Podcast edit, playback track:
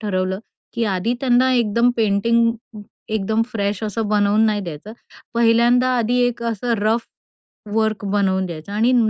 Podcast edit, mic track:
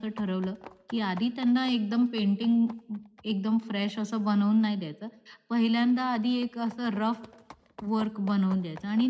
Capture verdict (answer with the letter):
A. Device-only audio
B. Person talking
A